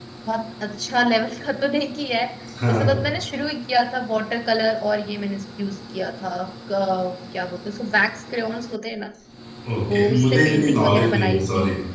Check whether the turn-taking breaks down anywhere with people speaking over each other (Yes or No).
Yes